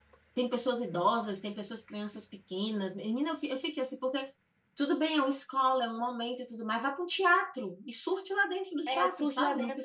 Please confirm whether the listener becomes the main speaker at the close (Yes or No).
Yes